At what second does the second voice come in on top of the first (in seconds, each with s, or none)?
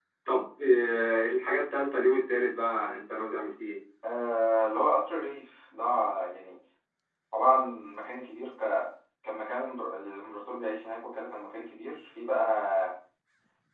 none